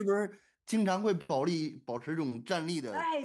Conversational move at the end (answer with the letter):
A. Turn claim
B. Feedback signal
A